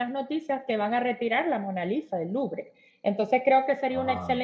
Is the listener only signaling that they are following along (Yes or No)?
Yes